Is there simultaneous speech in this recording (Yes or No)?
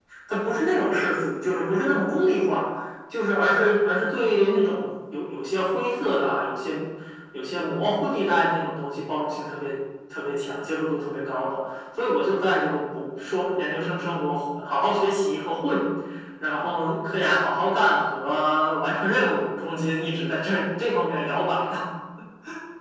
No